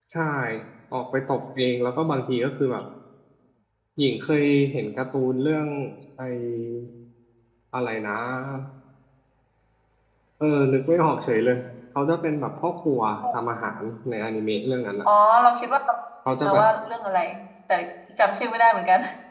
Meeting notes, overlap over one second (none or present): none